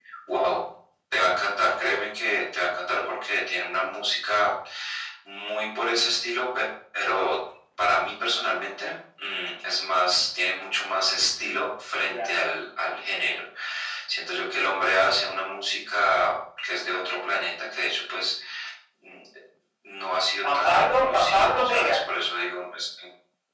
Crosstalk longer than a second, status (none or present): present